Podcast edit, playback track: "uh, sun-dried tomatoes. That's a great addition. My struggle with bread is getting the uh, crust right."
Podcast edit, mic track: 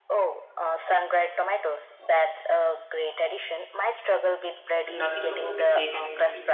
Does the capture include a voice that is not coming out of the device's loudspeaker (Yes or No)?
Yes